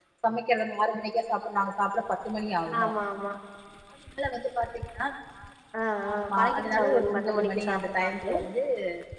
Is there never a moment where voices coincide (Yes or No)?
No